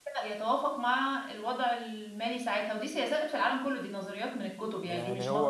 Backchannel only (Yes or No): No